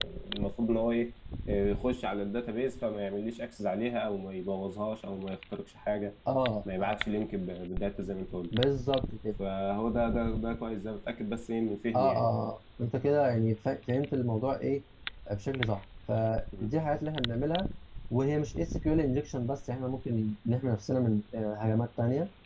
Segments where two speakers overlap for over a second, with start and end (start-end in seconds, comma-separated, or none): none